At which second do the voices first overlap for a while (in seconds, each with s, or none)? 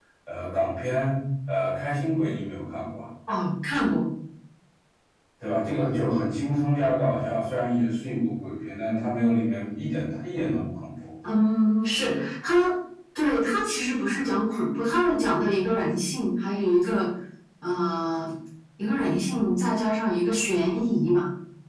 none